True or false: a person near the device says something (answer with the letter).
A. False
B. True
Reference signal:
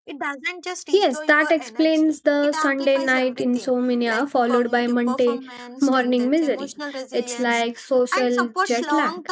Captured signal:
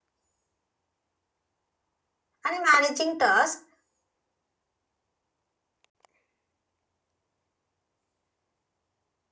B